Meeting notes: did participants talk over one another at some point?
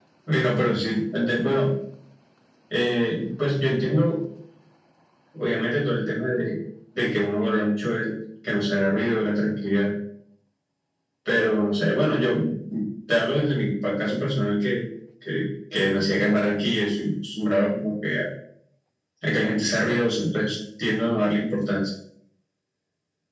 No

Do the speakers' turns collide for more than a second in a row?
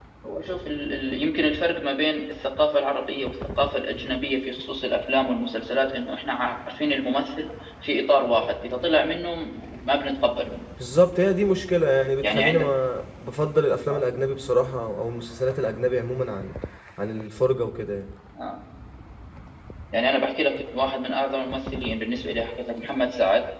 No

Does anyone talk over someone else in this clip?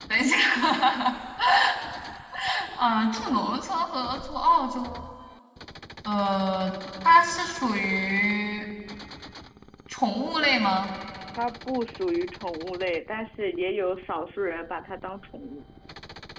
No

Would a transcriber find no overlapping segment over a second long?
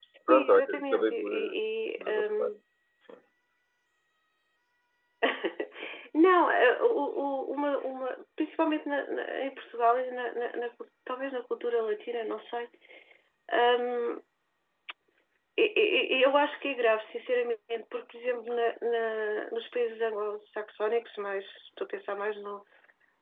No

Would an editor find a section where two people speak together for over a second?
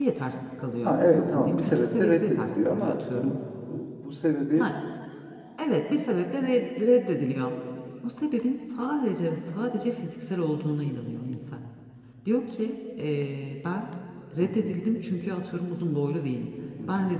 Yes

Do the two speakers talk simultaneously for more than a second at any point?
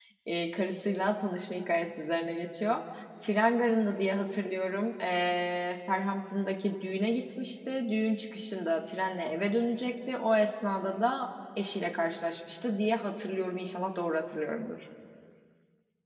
No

